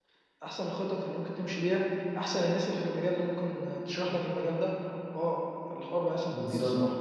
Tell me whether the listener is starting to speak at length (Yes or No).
Yes